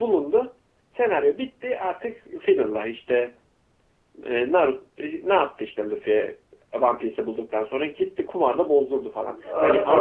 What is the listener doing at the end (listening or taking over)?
taking over